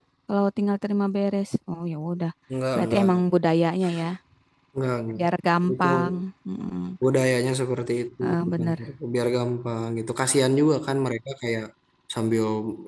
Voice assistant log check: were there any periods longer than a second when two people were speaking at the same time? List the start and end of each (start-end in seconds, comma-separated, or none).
none